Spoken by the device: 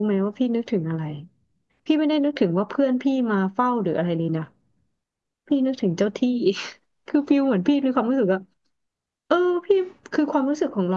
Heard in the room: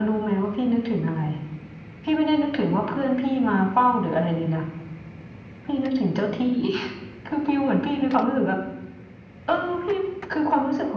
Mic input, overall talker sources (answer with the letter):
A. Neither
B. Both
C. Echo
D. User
C